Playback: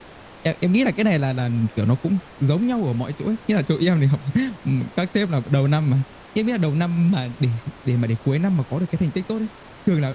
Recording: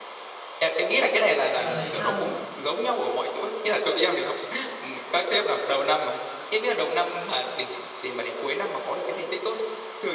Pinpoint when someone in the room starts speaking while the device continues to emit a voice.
1.5 s

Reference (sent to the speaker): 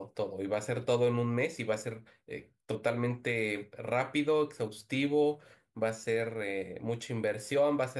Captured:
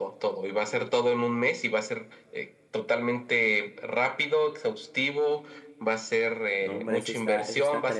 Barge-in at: 6.6 s

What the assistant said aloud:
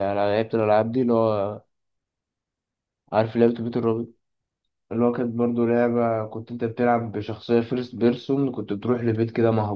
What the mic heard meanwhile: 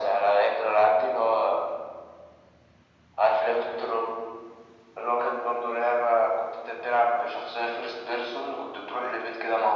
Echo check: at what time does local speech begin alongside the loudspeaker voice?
none

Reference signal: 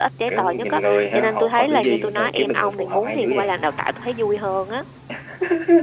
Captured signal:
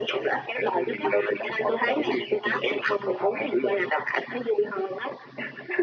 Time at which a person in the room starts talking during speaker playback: none

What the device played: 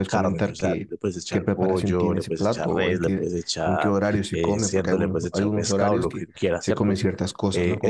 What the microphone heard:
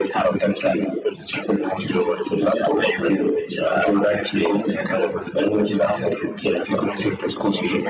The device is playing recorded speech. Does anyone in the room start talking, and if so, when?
none

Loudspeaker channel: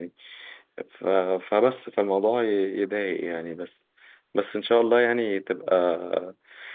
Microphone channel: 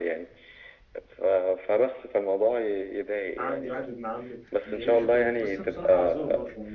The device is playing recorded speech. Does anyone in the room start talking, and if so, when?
3.4 s

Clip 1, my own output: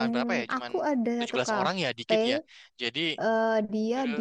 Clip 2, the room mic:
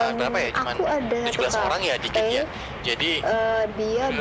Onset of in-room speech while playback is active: none

